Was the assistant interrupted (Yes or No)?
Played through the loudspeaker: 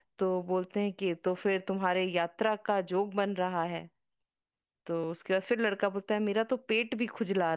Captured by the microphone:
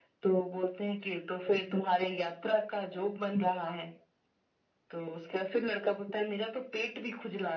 No